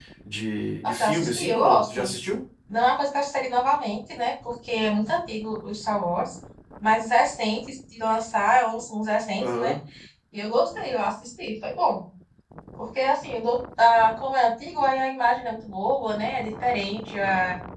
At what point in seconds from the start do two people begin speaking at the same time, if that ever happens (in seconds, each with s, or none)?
0.8 s